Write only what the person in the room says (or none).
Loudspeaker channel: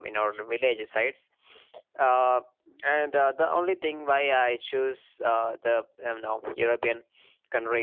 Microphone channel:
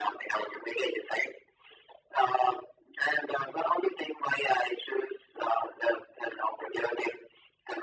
none